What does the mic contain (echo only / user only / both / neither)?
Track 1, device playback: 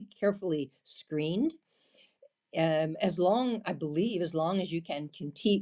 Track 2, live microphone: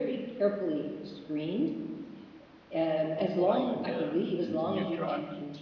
both